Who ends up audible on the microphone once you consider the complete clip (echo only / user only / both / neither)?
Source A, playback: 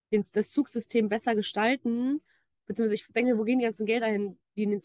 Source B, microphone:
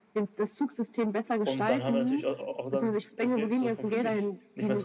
both